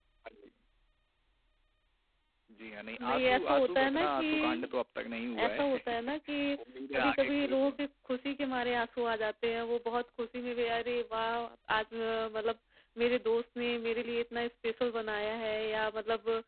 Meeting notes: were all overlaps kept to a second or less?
No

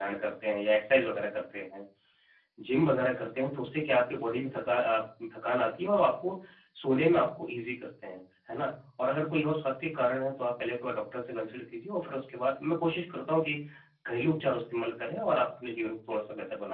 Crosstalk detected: No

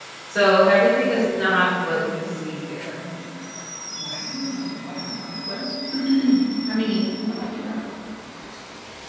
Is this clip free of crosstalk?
No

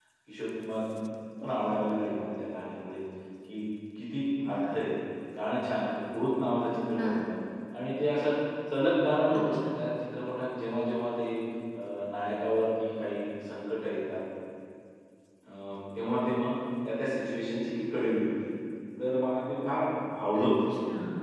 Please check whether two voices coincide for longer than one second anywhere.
No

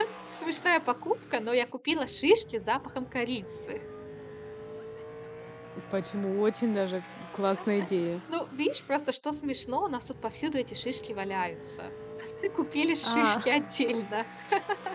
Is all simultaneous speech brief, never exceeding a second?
Yes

